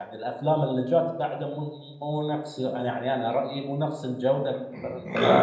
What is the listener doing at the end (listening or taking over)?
taking over